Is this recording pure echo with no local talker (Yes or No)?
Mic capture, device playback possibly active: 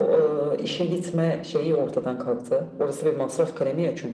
Yes